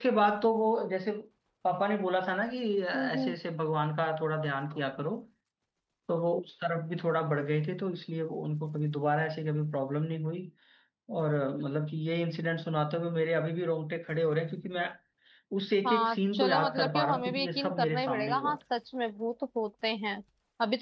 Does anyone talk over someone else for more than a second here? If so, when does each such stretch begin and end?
15.9-18.6

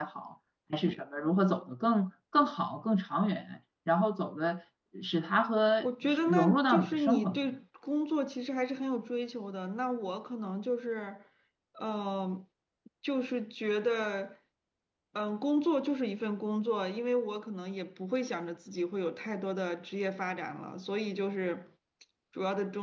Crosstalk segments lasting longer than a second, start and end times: 5.8-7.5

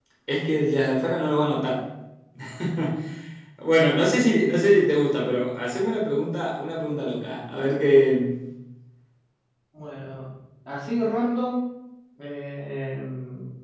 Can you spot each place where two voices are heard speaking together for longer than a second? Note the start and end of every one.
none

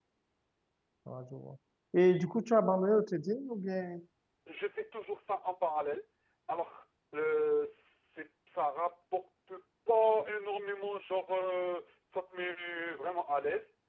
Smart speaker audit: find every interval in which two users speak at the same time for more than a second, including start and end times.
none

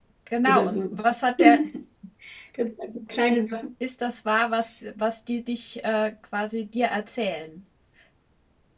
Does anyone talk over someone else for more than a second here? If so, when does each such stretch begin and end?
none

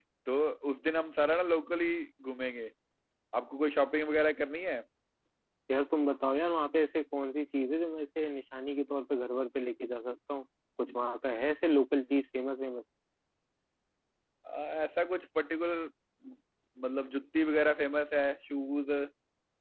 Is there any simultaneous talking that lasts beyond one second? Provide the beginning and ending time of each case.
none

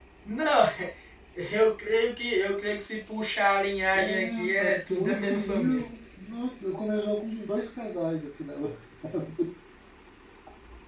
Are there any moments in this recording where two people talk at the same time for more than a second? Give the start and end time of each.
4.0-5.8

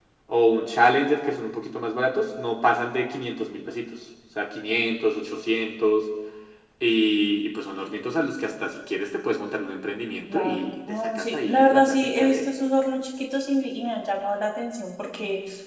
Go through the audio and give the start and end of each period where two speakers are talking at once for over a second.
10.3-12.5

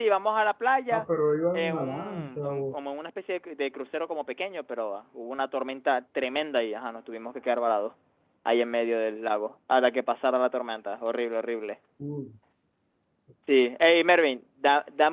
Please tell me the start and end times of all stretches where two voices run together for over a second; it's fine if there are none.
1.5-2.8

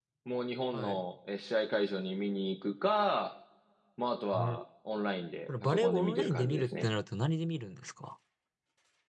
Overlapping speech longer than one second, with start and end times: 5.6-6.8

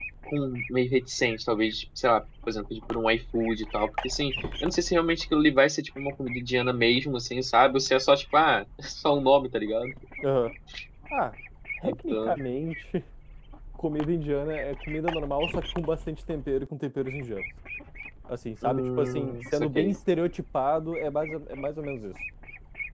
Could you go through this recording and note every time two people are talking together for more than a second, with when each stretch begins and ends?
18.6-19.9

